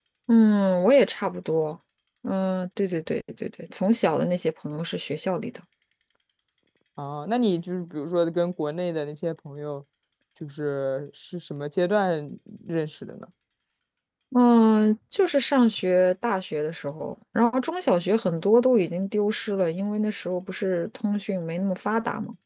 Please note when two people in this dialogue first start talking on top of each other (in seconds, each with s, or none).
none